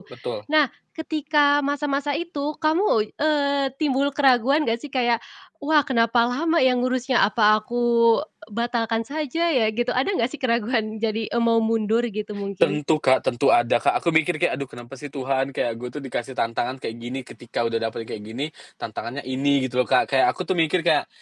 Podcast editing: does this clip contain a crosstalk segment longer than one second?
No

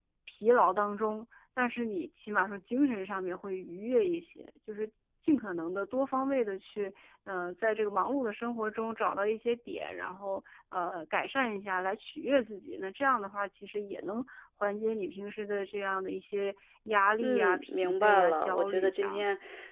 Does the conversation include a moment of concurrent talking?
Yes, from 17.2 s

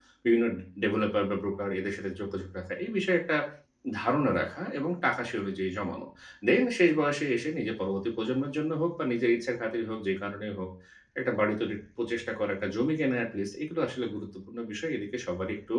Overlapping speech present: No

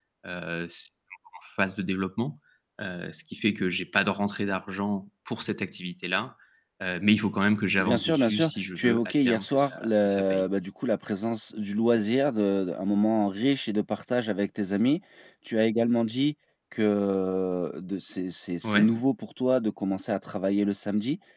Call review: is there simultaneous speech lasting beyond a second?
Yes, from 7.8 s

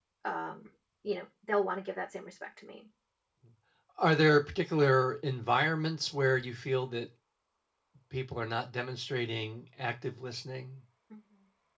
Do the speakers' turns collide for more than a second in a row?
No

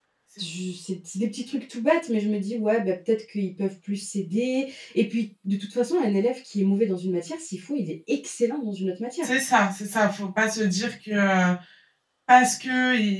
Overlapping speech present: No

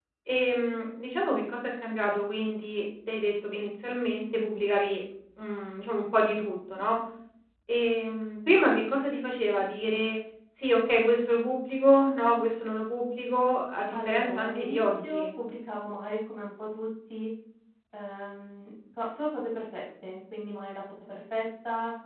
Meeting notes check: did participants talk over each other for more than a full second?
Yes, from 13.9 s

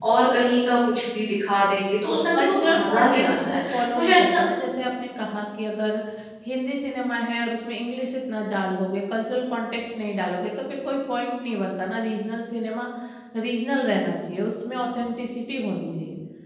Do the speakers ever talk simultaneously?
Yes, from 2.3 s

